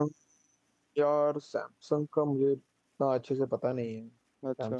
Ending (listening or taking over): taking over